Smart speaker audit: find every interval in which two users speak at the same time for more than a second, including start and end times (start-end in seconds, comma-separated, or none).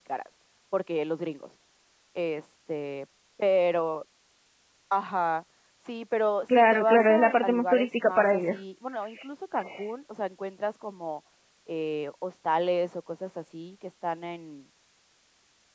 6.6-8.6